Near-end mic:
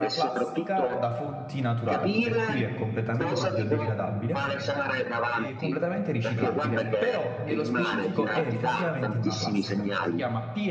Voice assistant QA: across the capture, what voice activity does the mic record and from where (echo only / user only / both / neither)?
both